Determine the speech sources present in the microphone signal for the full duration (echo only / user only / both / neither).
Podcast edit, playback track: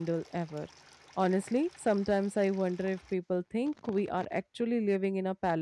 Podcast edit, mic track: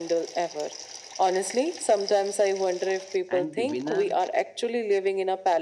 both